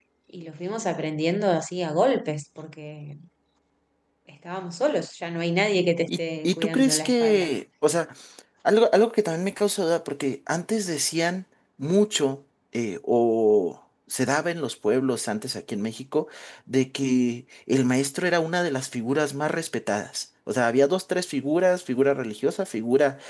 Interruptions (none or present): present